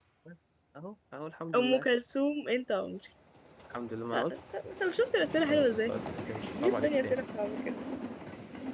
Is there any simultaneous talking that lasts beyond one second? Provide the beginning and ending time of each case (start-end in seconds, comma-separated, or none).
none